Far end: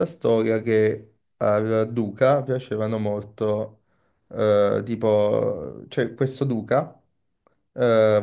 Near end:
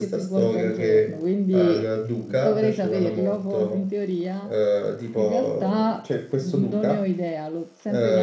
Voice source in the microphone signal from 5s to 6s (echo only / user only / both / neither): both